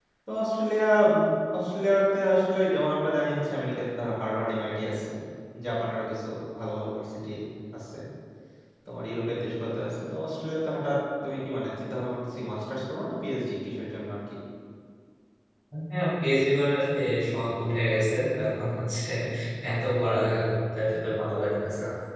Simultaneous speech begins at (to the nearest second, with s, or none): none